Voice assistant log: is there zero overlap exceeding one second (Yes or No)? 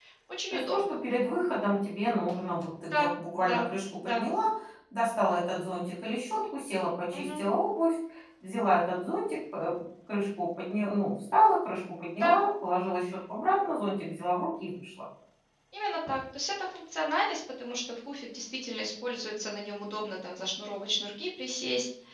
Yes